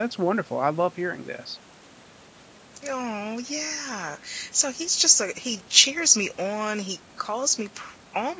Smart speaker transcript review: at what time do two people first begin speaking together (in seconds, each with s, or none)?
none